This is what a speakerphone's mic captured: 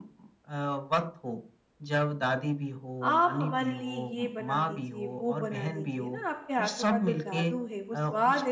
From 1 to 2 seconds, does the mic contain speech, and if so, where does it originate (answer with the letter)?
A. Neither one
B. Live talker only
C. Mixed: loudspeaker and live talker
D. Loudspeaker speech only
D